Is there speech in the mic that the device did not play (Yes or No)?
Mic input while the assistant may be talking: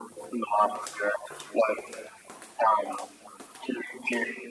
No